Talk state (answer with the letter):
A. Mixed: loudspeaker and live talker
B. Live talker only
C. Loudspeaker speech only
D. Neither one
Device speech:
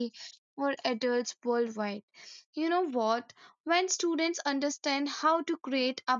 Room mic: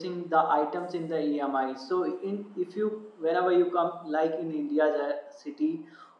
B